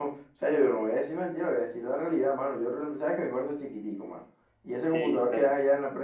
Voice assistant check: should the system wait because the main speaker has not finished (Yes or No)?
Yes